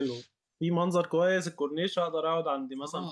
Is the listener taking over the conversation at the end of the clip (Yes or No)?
Yes